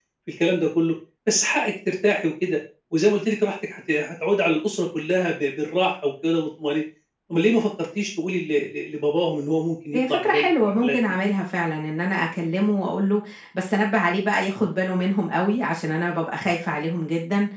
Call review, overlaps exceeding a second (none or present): present